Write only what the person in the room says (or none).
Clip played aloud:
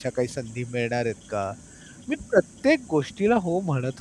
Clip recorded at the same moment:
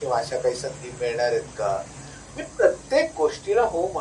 none